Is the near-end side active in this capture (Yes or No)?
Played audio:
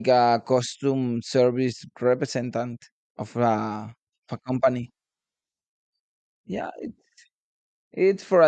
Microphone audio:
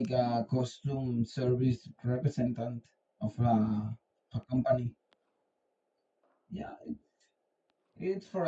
No